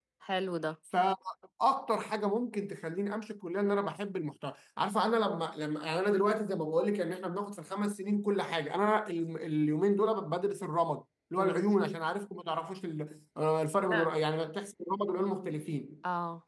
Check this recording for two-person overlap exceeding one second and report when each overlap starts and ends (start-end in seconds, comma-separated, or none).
none